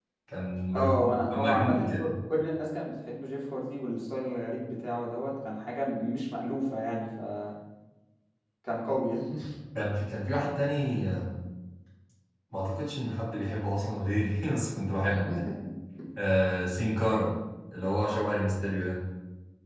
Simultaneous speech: Yes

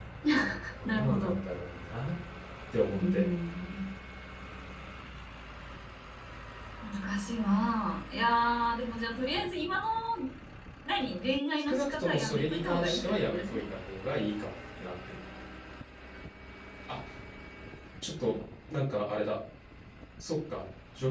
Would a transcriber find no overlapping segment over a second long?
No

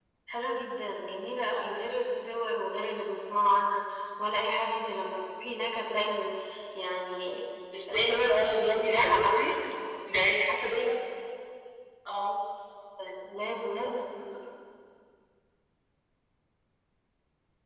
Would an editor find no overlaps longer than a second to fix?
No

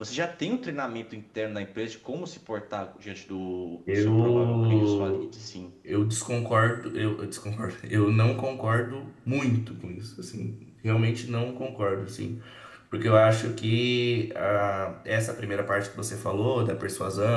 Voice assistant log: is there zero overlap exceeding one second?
No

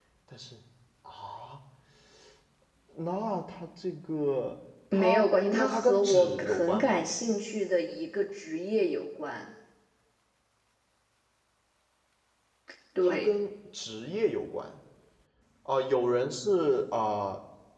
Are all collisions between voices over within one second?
No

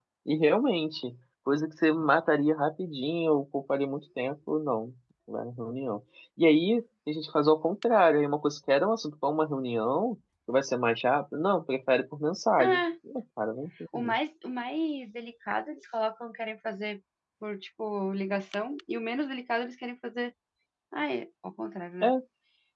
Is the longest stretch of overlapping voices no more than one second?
Yes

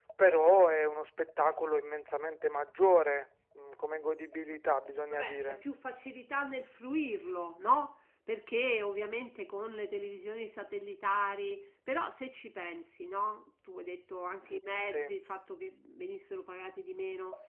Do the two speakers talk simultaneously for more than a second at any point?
No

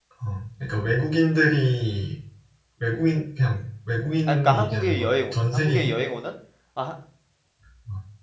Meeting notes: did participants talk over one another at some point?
Yes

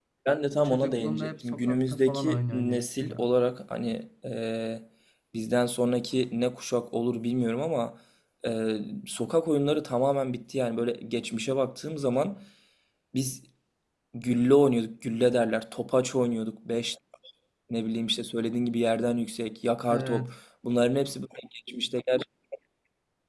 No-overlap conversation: No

